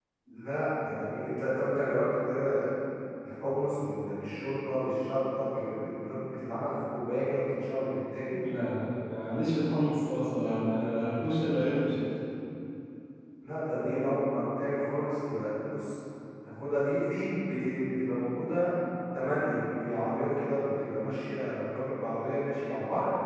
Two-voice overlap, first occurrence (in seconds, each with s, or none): none